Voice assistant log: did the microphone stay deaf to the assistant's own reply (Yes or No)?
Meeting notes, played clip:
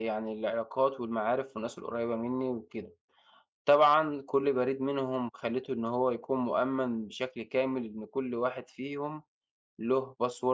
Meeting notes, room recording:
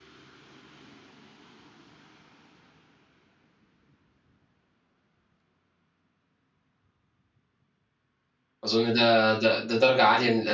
Yes